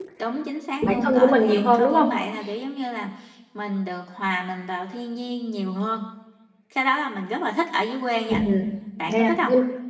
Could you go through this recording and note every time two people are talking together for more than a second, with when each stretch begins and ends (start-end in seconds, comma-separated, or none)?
0.8-2.1